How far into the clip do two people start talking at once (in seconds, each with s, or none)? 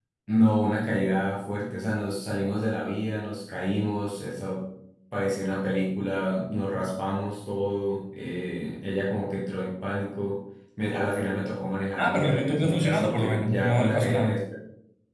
12.0 s